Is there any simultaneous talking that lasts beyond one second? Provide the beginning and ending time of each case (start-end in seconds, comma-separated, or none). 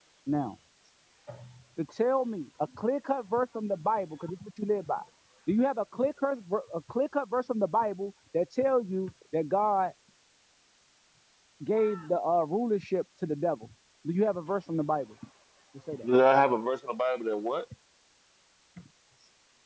none